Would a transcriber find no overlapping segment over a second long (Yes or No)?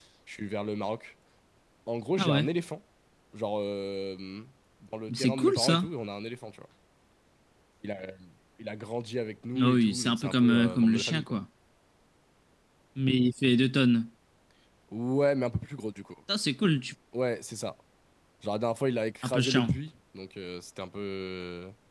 No